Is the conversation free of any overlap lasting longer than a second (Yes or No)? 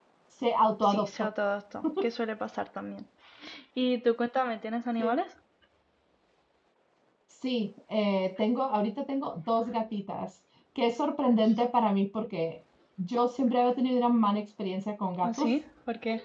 Yes